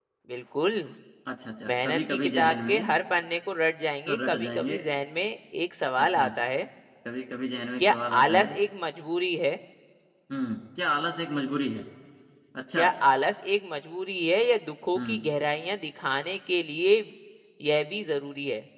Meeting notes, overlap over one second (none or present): present